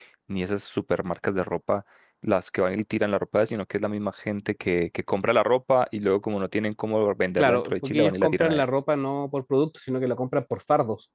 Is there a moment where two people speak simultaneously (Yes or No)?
Yes